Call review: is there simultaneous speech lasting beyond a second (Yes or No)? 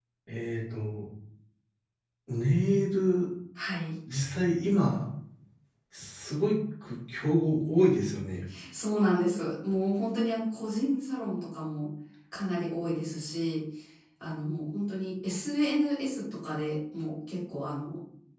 No